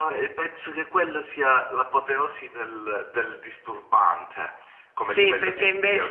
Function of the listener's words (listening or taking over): taking over